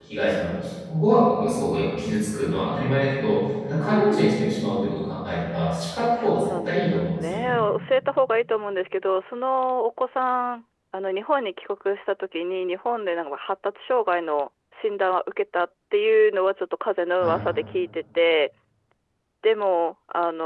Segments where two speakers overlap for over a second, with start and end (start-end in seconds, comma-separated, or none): 6.2-7.5